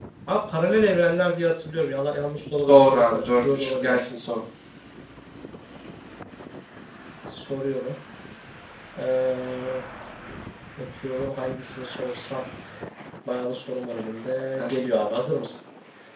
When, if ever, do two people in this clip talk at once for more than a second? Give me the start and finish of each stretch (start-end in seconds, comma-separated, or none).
2.7-4.0